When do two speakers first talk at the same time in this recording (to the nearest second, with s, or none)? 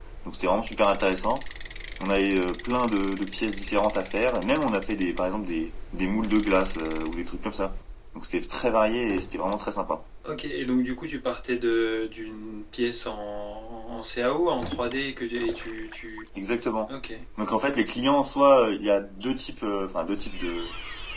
none